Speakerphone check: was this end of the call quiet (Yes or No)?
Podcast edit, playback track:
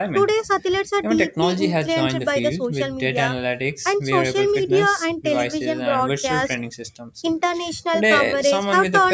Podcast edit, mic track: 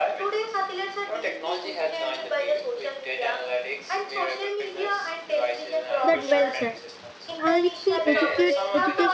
No